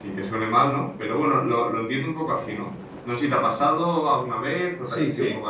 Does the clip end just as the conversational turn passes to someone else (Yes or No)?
Yes